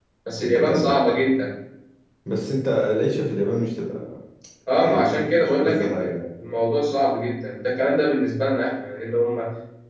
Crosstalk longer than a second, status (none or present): present